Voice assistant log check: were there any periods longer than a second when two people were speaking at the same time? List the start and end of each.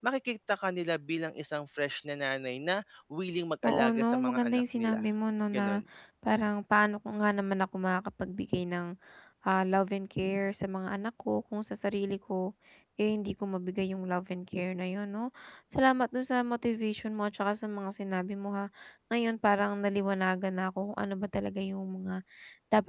3.7-5.0

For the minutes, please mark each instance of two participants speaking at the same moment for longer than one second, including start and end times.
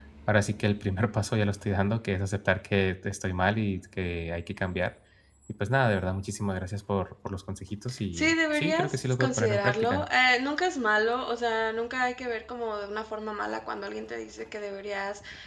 8.1-10.1

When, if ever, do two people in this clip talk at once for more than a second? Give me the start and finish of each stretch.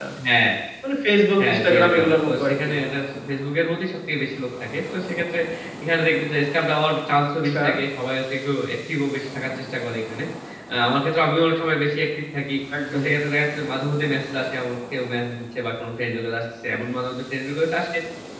1.4-2.7

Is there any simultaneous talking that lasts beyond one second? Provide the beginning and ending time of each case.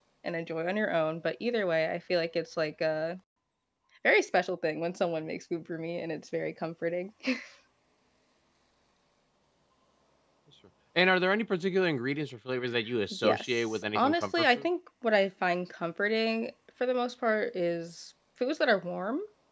13.2-14.6

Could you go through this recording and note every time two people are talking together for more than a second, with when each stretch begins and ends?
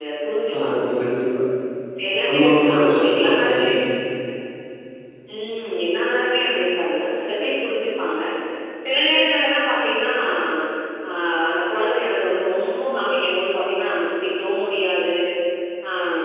2.3-3.8

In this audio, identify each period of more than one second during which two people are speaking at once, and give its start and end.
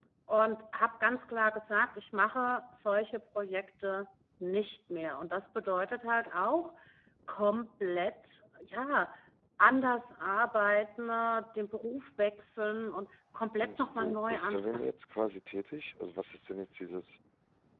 13.6-14.9

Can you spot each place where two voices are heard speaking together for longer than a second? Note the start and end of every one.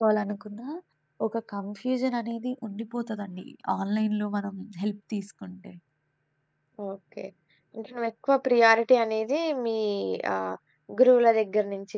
none

